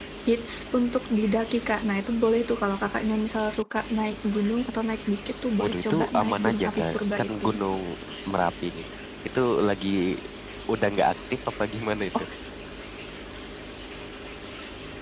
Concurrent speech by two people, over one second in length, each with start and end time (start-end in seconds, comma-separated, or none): 5.6-7.4